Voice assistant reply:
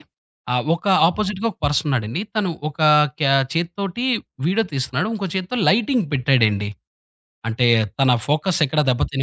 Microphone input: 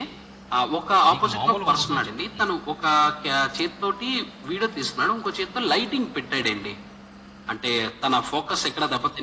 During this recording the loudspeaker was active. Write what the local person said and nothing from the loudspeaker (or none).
మీకు మామూలుగుండదు" అని చెప్తుంది.